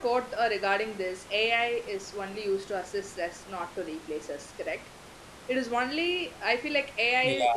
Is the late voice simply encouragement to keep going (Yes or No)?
Yes